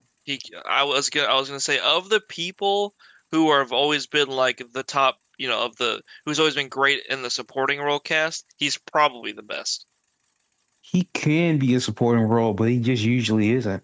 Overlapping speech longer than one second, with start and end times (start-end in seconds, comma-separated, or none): none